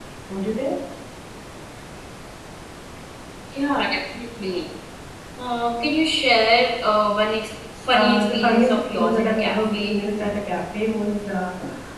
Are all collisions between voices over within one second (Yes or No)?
No